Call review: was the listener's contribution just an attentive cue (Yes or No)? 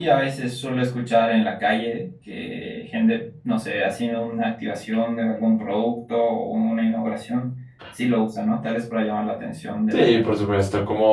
No